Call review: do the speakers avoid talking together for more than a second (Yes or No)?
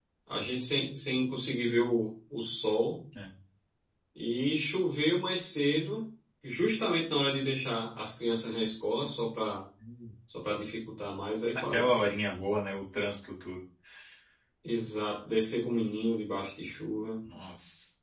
Yes